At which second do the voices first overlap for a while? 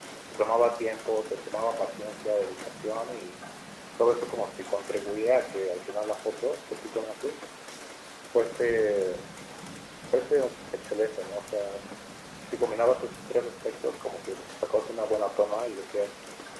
none

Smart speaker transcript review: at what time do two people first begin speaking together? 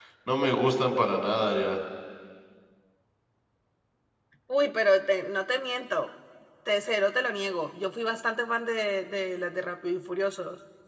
none

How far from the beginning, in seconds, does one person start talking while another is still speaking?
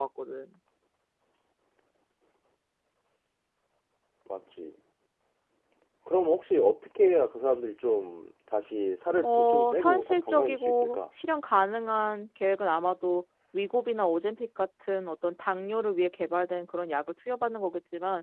9.2 s

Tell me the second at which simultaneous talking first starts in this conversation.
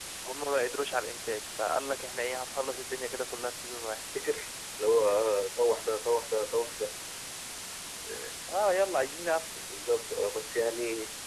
none

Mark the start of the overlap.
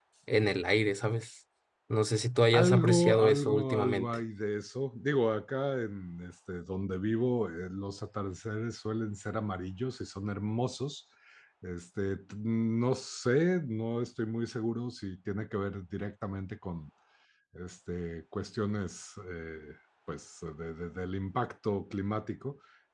2.5 s

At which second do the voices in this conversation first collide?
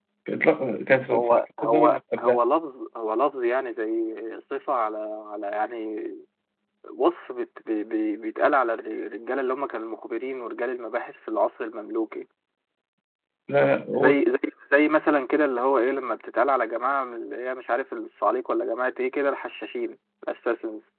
1.1 s

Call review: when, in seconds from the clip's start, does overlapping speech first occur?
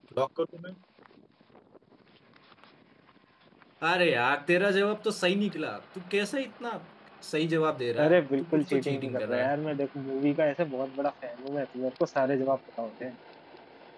8.0 s

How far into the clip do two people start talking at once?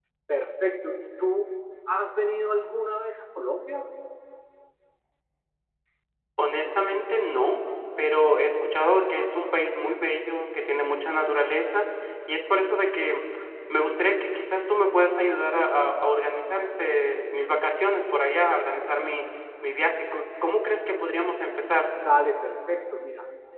none

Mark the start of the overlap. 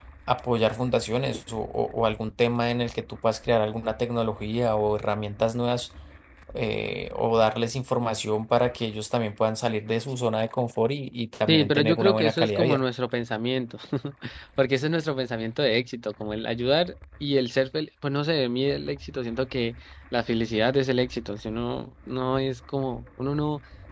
11.5 s

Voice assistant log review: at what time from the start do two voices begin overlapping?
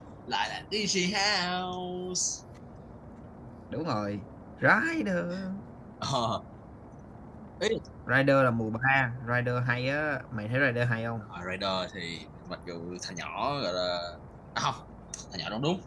none

